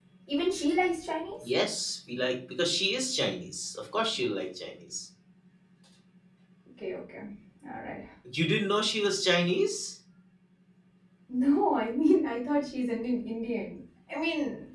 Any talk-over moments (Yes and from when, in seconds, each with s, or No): No